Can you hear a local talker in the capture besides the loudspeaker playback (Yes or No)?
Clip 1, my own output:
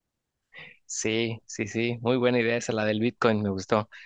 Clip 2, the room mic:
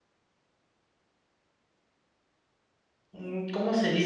Yes